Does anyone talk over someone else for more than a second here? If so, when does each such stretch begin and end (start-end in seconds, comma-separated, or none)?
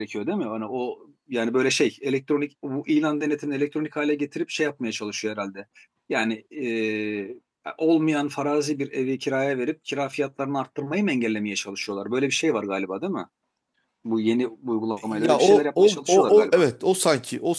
15.0-16.6